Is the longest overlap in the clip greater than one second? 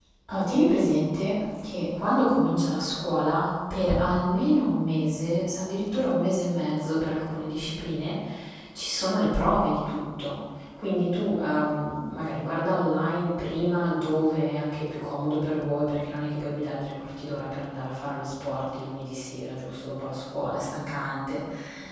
No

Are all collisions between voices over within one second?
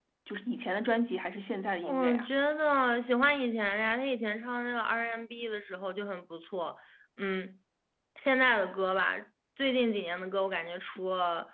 Yes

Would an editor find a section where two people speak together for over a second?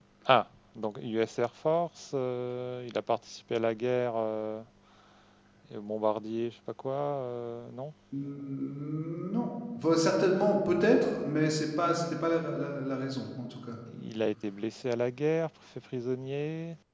No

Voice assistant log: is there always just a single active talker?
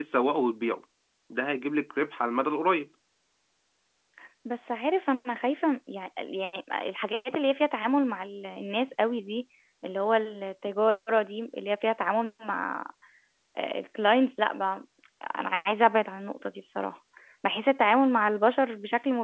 Yes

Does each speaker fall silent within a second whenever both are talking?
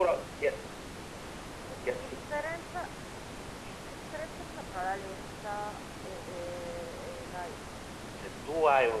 Yes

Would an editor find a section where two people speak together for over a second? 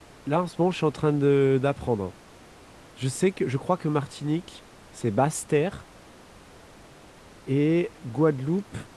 No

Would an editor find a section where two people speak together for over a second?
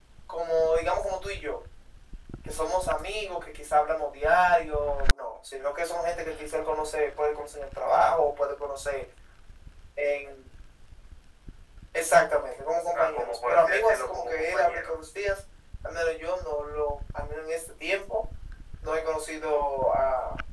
Yes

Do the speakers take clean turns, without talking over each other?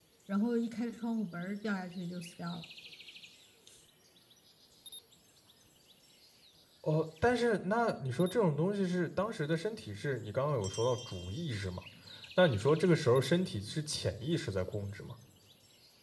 Yes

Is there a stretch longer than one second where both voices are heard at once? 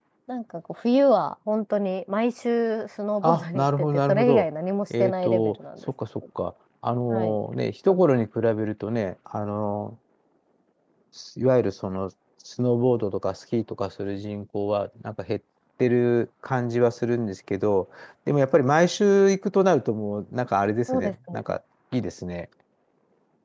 Yes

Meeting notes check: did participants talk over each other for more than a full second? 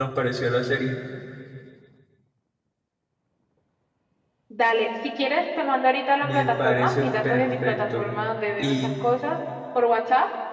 Yes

